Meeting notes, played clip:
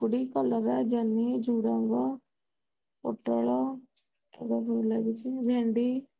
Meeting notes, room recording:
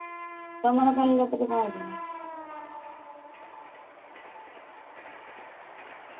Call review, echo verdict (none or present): none